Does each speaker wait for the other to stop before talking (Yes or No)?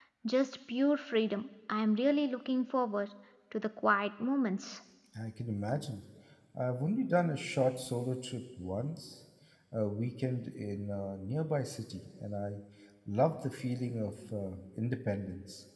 Yes